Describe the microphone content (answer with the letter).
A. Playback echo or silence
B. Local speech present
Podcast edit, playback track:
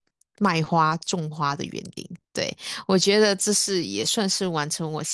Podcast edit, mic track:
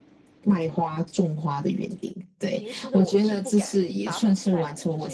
B